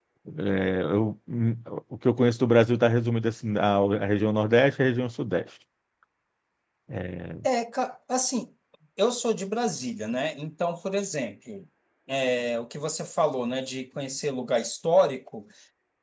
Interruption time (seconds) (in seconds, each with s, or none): none